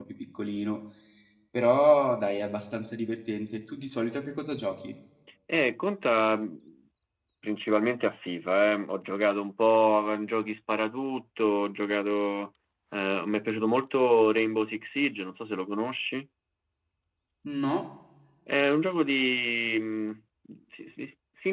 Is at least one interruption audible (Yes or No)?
No